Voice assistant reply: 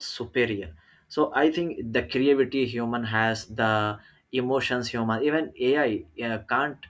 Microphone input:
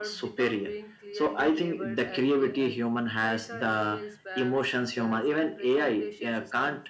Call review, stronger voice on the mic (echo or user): echo